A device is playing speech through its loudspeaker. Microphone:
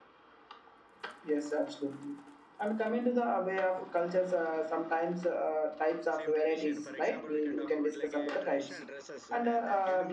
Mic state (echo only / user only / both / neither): both